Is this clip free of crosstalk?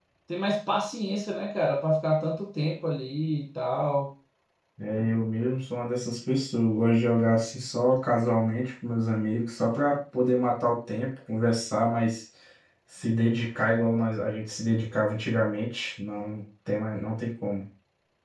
Yes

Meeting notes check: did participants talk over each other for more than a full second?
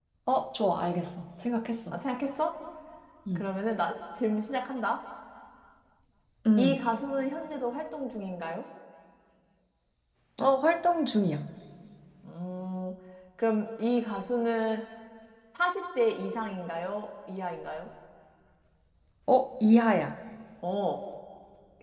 No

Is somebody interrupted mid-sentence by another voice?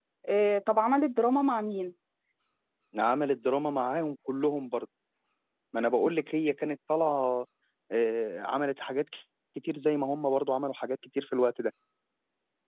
No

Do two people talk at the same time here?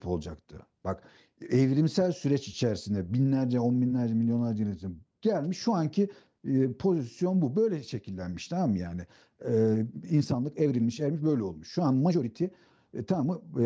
No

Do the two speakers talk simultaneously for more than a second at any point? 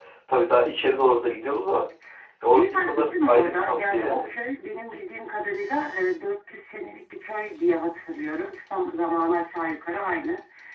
Yes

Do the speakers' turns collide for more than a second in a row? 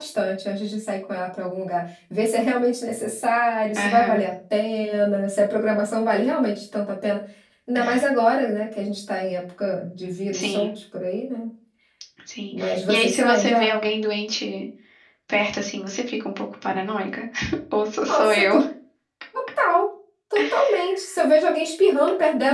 Yes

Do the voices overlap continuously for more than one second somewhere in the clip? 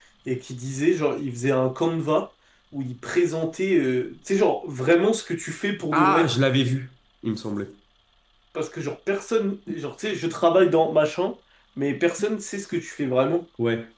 No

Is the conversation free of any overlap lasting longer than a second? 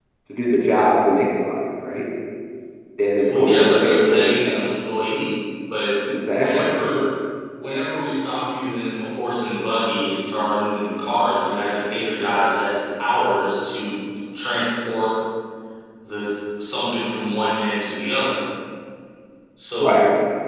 No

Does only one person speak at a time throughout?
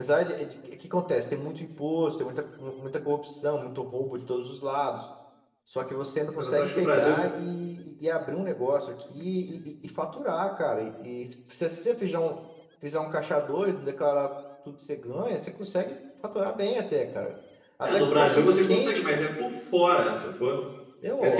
No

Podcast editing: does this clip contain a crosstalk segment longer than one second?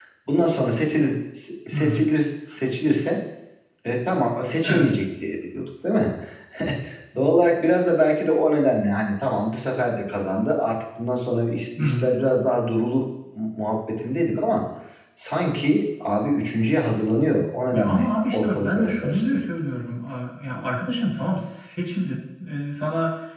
Yes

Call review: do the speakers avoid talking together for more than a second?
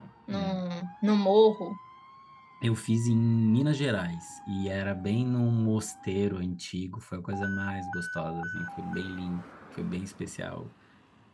Yes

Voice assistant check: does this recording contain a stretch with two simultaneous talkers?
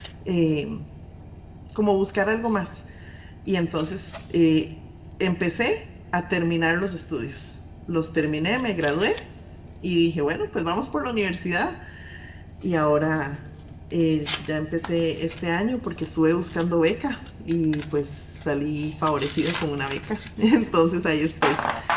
No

